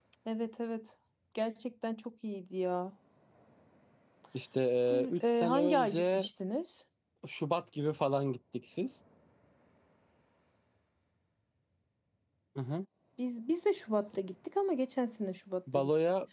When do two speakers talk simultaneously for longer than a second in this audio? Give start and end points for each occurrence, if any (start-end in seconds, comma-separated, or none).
4.8-6.3